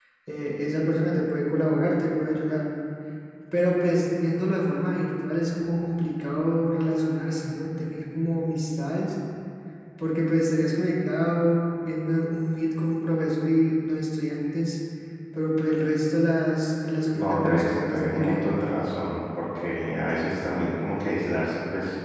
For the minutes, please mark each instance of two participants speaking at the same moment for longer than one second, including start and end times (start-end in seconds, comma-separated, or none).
17.1-18.5